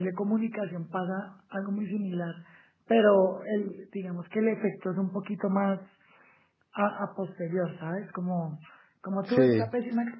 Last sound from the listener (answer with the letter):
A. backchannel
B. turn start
A